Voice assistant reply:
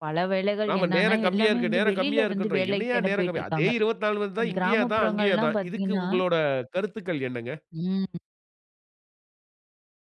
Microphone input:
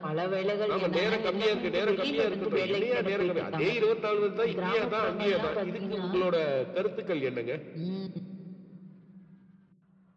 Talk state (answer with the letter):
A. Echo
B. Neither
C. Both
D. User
A